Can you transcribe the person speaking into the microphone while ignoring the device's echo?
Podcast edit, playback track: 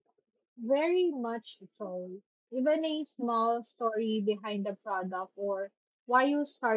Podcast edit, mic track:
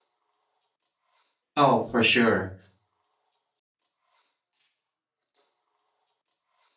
Oh, for sure.

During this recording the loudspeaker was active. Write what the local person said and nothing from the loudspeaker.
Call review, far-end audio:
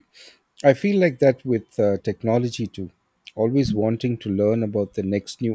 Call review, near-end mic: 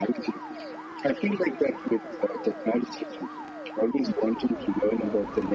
none

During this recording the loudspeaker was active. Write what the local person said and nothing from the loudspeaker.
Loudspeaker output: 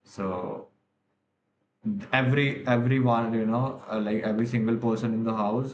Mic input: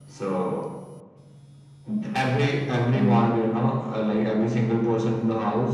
Mm-hmm.

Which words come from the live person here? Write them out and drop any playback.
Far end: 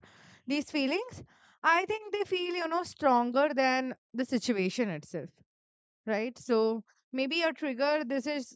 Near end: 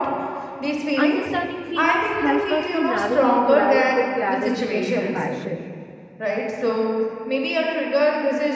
Understanding feelings help us to navigate life with clarity and compassion.

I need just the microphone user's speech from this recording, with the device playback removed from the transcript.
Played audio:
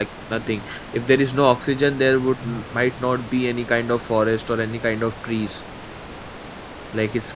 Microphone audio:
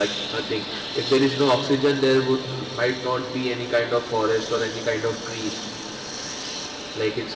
none

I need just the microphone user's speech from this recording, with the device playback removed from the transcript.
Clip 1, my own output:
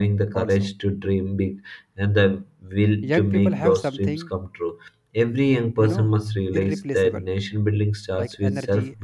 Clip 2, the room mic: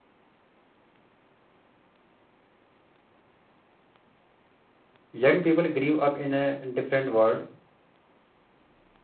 young people grew up in a different world,

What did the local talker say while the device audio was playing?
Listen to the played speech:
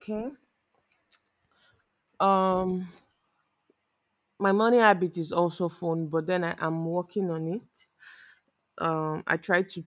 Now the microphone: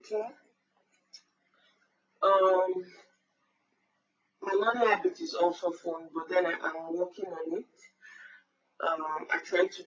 none

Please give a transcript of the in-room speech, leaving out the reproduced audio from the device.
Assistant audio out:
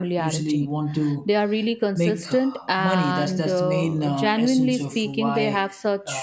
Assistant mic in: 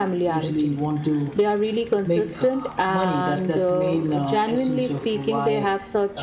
none

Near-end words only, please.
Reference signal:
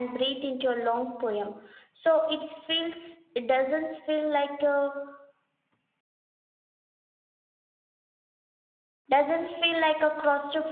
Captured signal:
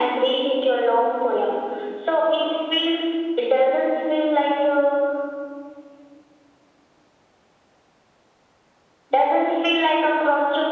none

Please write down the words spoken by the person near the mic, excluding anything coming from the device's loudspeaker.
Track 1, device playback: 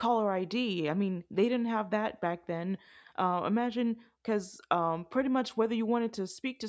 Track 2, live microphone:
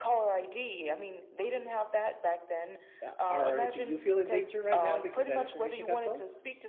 Uh, Are do you feel in danger right now because that information got sold?

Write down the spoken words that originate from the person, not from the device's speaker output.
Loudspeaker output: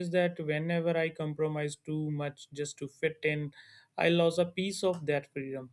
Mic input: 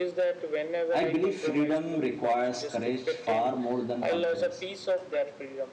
I believe freedom requires courage far more than confidence.

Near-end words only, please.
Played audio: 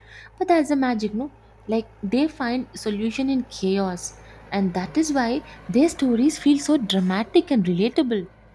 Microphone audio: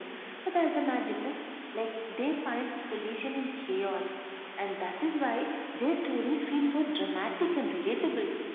none

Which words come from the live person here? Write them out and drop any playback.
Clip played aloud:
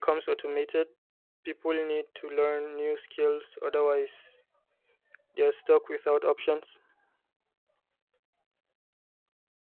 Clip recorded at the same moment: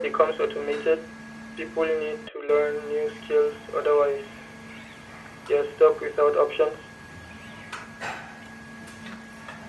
none

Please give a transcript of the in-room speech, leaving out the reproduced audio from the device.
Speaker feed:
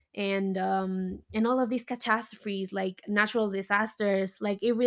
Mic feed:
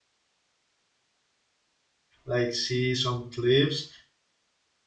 like see some clips,

